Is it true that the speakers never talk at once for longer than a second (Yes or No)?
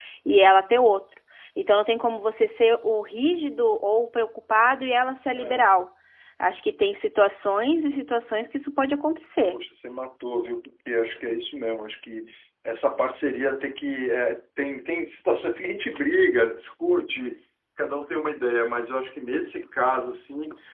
Yes